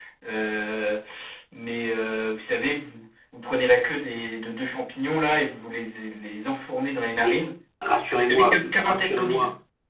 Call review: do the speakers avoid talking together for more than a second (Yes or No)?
No